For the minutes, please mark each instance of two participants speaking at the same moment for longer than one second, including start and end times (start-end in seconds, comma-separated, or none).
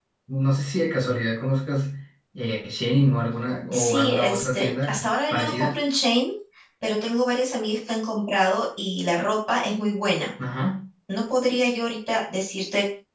3.7-5.8